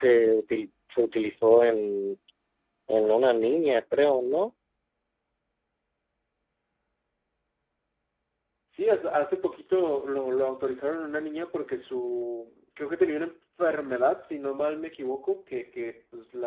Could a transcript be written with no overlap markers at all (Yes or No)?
Yes